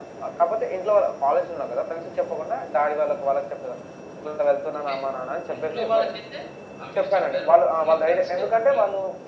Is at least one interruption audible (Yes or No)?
Yes